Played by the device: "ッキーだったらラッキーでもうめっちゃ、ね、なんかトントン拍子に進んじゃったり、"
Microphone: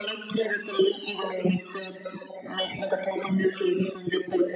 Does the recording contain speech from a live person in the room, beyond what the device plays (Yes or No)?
No